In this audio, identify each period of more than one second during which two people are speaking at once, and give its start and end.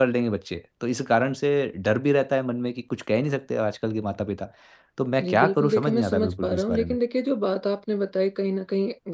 5.2-7.0

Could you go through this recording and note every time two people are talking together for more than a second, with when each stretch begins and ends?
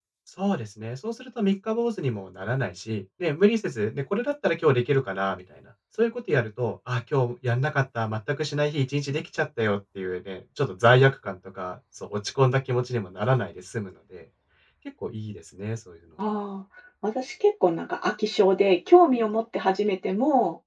none

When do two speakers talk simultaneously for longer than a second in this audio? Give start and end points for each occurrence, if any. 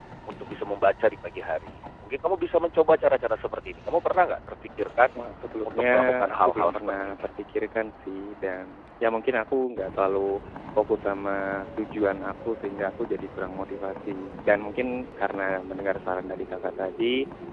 5.7-7.1

